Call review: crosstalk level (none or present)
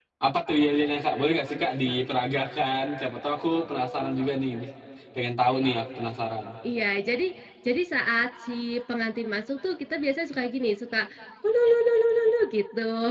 none